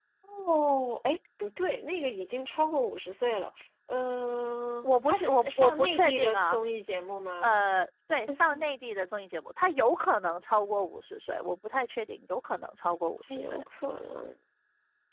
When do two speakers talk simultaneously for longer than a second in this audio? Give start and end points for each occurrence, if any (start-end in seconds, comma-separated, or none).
4.8-6.6